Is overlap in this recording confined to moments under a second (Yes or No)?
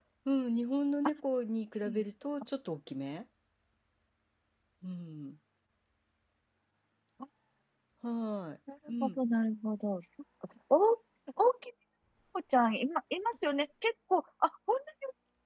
Yes